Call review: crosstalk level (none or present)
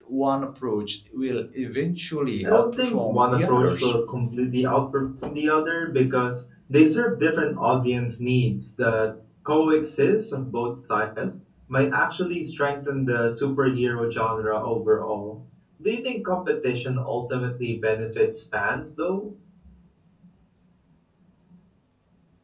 present